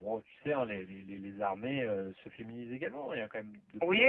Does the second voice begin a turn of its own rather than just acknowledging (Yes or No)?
Yes